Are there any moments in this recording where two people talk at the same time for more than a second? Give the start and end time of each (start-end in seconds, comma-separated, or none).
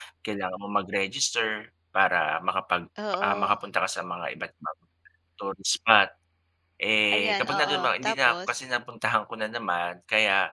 7.1-8.6